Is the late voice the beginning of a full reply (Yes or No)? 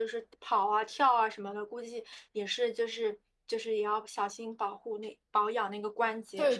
Yes